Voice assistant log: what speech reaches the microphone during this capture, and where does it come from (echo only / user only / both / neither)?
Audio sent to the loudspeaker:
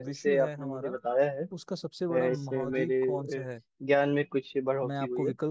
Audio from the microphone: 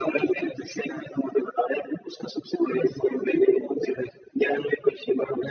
echo only